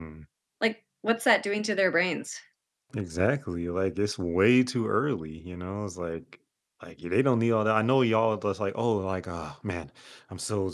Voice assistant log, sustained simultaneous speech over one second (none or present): none